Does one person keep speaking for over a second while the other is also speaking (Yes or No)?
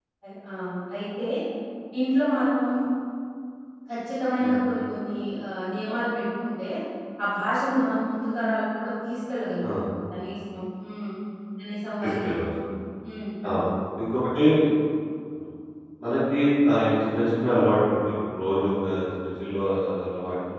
No